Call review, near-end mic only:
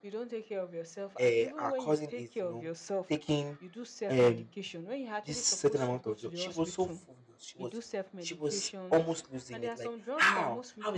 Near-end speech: present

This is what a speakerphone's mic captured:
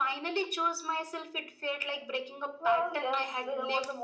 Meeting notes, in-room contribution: none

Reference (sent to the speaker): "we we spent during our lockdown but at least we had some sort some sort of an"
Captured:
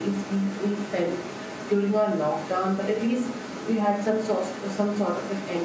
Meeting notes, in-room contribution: none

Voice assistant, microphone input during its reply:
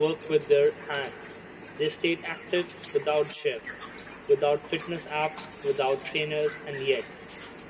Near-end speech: present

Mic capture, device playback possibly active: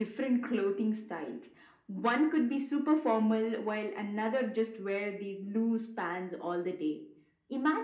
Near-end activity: none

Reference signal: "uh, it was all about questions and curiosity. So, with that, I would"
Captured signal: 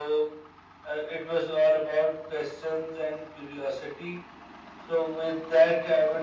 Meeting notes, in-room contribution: none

